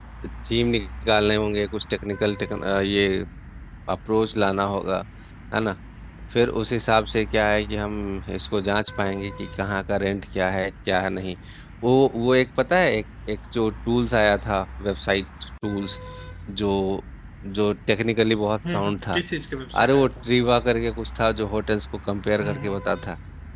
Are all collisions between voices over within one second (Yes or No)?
Yes